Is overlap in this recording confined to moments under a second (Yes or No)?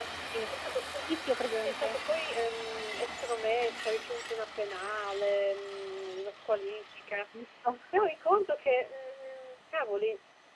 Yes